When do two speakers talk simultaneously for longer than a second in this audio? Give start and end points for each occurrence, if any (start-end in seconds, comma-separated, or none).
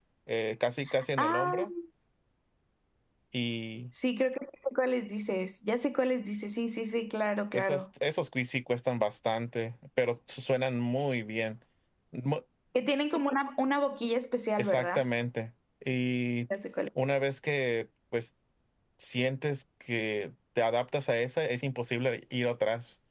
none